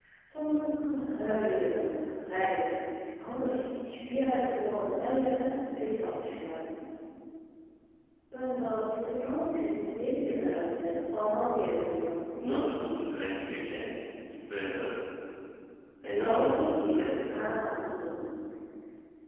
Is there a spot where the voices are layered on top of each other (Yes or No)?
Yes